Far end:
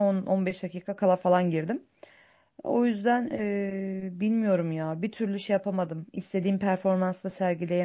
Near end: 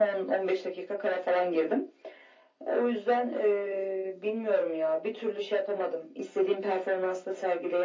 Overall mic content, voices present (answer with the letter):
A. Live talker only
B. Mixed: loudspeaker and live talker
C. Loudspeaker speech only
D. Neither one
C